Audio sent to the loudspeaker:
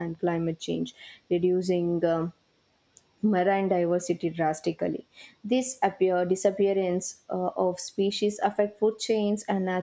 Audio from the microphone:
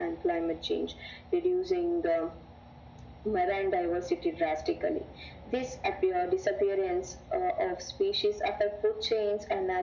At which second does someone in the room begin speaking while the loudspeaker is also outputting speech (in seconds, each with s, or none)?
none